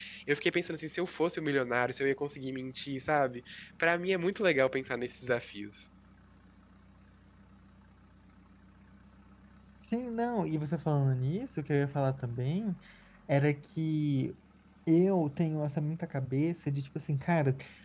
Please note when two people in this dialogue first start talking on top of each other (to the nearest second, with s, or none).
none